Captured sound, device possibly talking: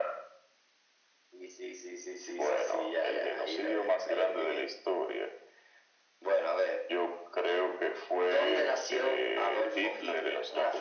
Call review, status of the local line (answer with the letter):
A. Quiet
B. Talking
A